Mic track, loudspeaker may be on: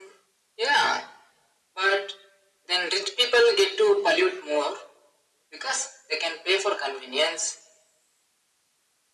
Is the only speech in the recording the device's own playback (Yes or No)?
Yes